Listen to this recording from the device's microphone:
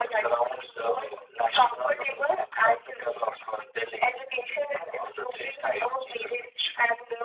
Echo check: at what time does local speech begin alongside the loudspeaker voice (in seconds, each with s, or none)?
none